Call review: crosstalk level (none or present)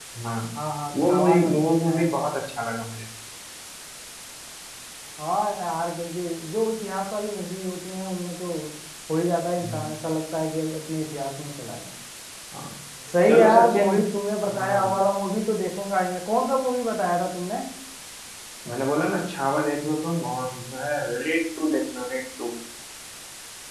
present